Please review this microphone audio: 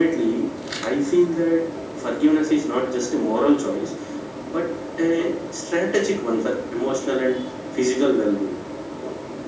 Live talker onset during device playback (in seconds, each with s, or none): none